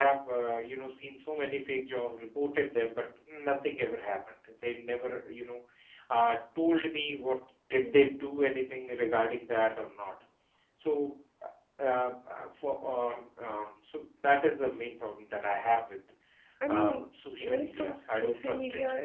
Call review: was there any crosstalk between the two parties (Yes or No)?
Yes